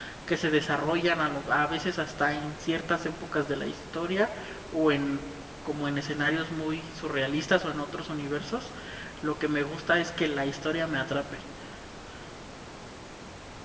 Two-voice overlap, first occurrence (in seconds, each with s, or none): none